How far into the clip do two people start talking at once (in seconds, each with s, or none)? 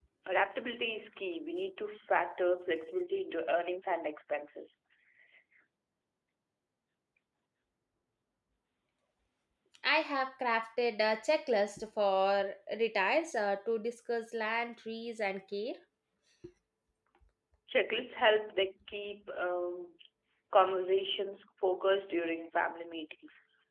none